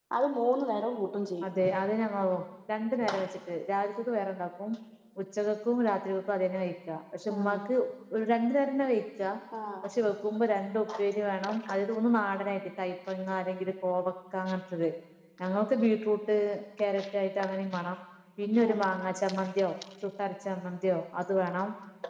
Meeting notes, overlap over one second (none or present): none